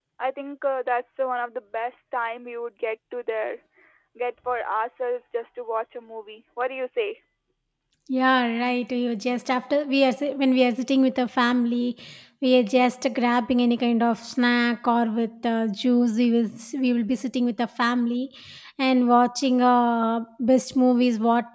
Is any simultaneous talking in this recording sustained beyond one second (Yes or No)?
No